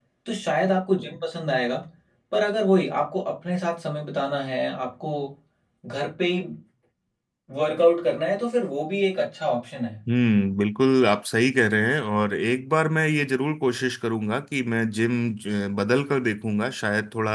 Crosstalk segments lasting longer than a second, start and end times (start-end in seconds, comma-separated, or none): none